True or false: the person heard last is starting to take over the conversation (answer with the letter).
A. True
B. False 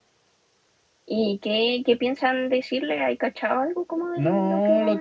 A